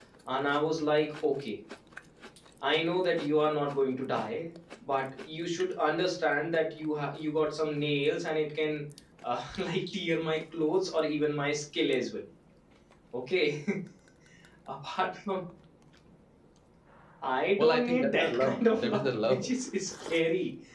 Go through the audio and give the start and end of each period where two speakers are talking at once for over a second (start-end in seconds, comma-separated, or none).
17.6-19.4